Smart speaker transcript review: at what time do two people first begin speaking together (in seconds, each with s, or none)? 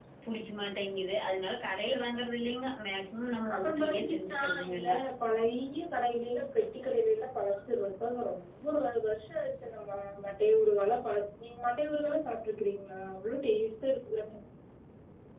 3.5 s